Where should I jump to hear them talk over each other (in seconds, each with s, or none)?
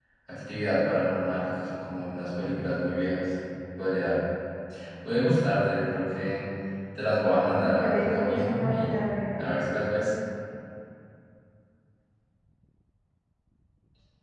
7.6 s